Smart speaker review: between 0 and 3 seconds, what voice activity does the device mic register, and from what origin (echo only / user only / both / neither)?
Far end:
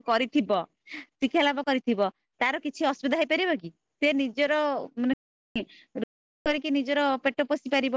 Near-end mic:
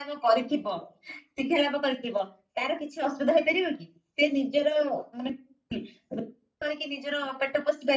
echo only